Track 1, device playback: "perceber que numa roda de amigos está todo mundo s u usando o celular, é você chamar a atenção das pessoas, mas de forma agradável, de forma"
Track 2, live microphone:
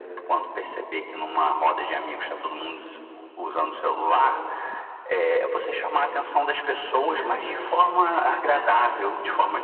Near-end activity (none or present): present